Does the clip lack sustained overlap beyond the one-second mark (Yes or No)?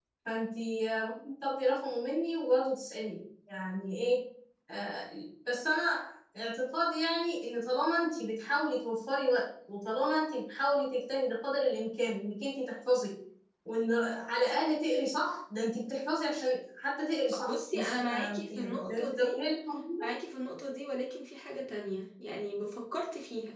No